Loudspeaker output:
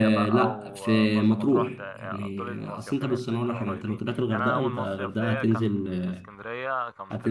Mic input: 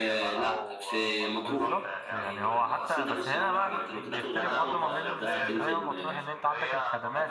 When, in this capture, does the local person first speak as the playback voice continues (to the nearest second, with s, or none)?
1 s